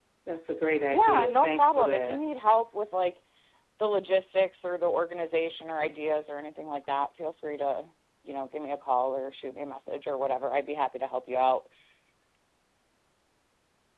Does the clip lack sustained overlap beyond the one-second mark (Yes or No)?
No